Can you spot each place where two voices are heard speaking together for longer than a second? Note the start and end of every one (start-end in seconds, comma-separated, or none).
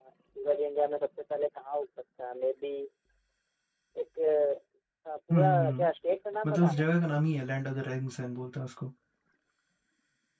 none